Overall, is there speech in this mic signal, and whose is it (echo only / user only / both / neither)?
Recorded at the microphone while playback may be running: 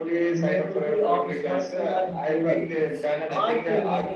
both